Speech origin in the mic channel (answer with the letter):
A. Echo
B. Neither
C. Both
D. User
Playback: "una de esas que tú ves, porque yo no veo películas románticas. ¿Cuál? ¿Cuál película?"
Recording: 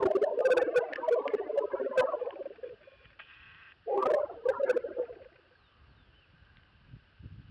A